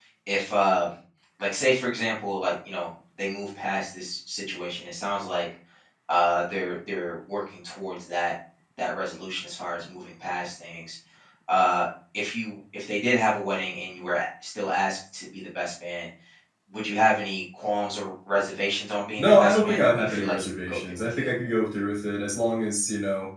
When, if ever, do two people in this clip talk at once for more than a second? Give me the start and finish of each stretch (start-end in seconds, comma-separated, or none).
19.2-21.3